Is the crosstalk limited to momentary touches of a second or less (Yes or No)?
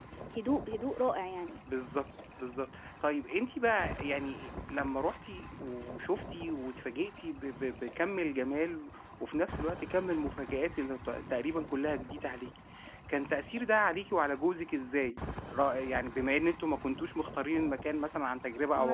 Yes